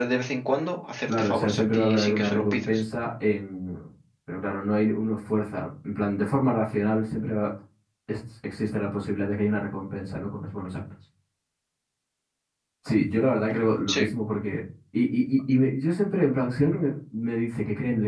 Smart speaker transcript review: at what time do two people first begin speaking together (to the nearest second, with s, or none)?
1 s